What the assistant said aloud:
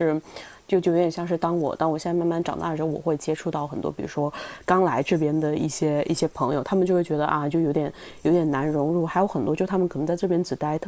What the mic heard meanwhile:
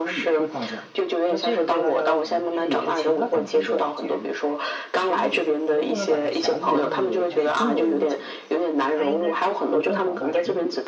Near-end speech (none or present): present